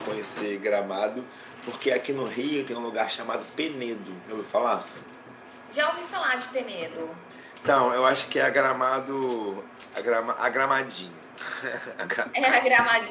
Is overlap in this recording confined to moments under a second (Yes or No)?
Yes